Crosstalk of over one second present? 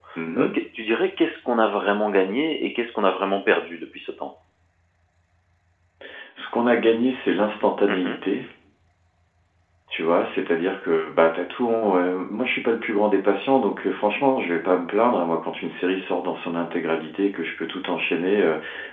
No

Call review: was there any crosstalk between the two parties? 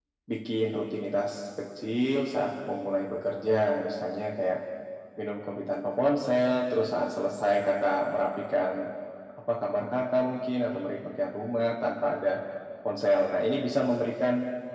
No

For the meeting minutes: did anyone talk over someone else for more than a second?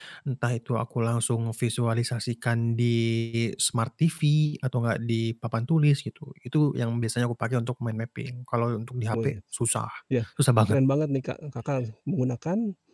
No

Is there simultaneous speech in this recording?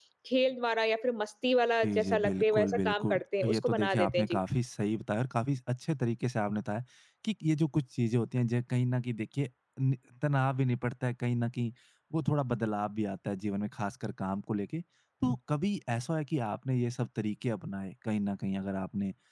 Yes, from 1.8 s

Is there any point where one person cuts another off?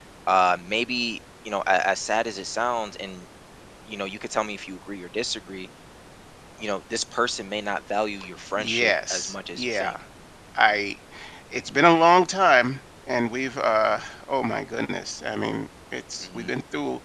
Yes, from 8.6 s

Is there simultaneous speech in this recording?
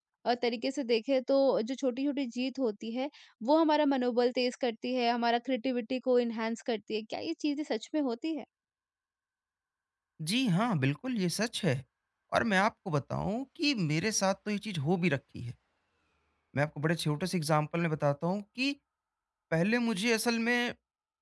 No

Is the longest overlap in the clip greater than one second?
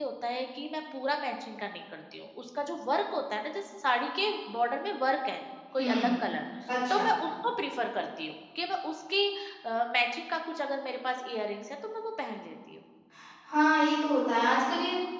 No

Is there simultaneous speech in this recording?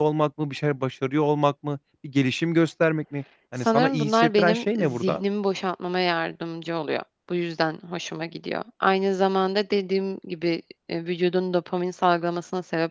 Yes, from 3.6 s

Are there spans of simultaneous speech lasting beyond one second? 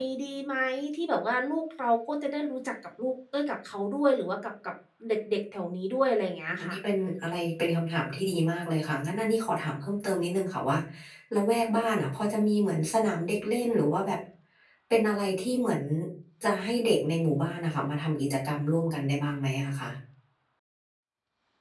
No

